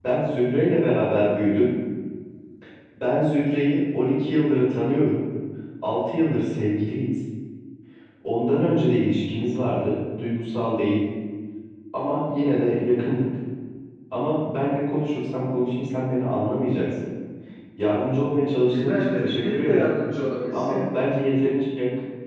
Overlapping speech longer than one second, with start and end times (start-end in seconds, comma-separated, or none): 18.6-19.9